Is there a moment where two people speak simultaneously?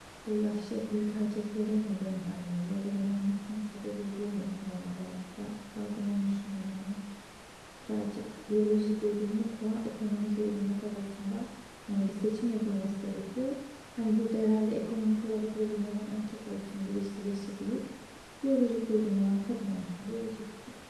No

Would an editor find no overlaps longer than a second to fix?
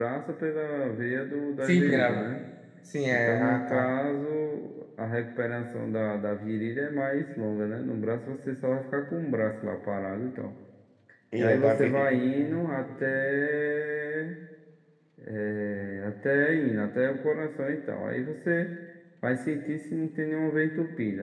No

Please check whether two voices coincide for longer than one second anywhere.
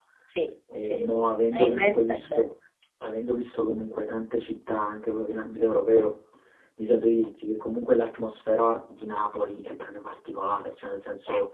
Yes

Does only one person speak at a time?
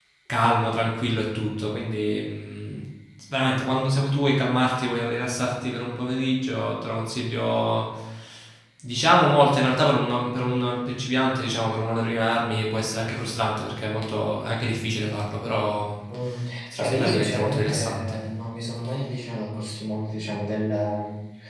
No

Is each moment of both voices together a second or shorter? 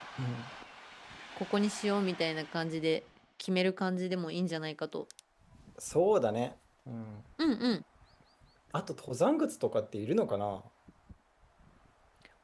Yes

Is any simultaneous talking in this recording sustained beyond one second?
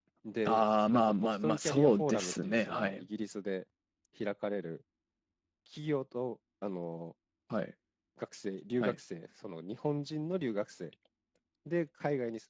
Yes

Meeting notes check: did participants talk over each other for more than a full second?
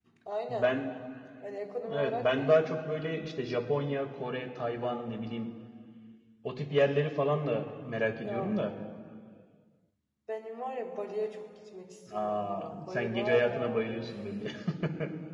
Yes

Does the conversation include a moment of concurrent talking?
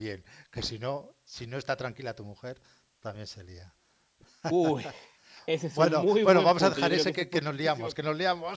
Yes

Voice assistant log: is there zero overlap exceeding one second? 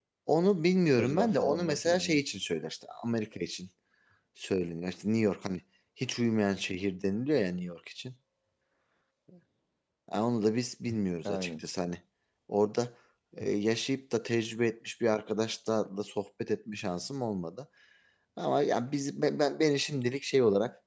No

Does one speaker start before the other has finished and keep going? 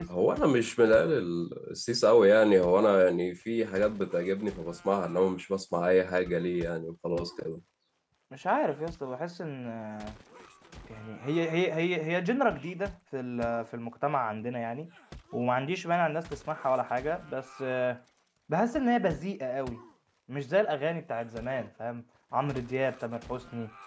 No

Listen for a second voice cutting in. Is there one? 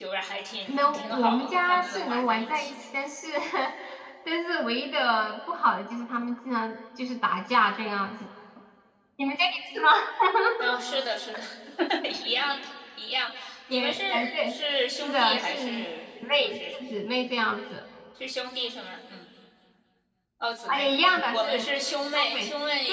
Yes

